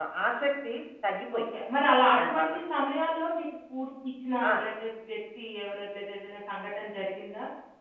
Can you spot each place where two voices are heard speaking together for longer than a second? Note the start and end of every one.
none

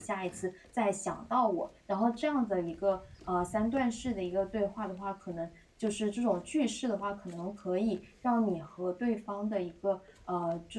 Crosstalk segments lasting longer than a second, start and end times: none

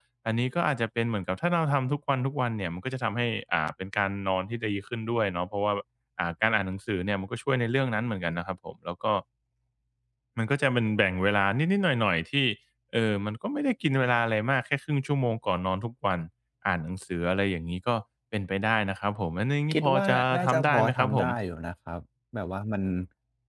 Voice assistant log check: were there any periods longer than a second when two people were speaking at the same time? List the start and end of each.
19.7-21.3

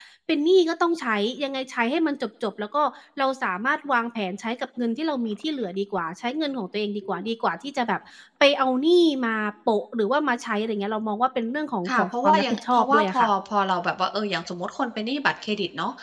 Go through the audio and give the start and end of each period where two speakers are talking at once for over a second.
11.9-13.3

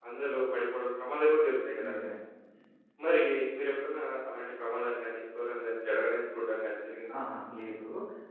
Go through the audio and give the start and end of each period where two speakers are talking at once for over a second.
none

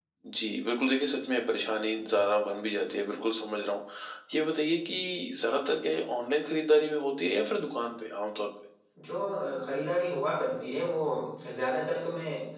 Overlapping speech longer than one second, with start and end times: none

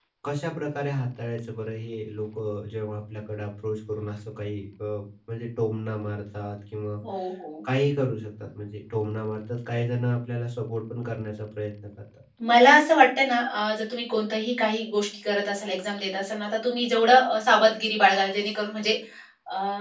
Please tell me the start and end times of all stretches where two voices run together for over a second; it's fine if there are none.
none

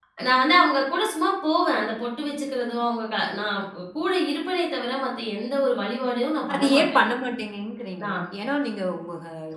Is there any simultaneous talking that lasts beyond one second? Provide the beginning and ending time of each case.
none

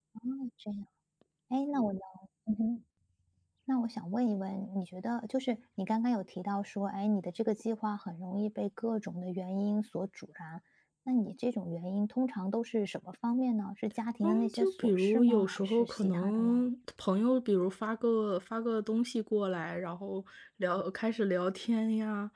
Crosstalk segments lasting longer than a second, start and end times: 14.2-16.6

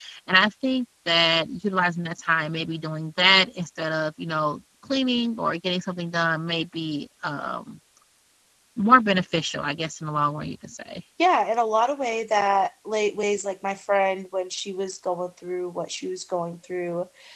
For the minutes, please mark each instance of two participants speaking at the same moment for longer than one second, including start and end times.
none

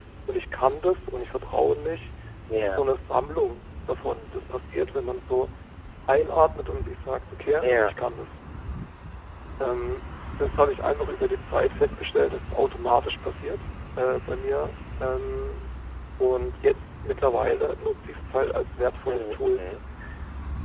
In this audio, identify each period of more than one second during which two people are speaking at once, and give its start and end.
none

